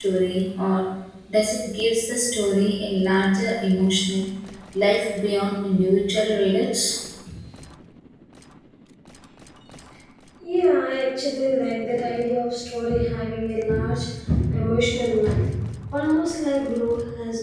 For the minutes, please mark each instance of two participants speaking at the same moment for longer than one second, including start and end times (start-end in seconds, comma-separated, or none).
none